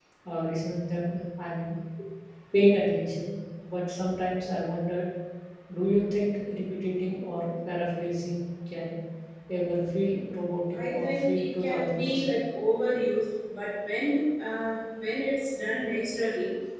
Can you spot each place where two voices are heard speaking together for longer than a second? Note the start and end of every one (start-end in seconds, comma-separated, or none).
10.7-12.4